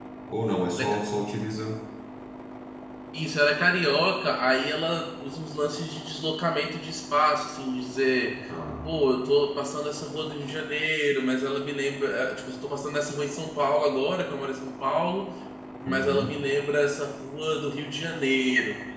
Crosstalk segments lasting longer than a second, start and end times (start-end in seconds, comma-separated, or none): none